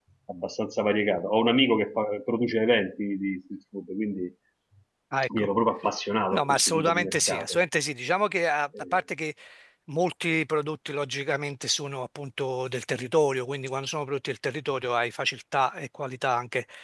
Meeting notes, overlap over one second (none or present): present